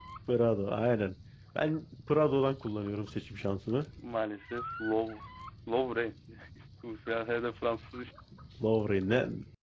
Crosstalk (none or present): none